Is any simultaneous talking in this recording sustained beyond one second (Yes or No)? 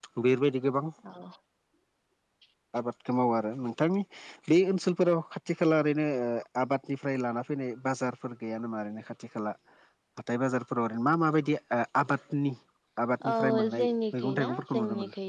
Yes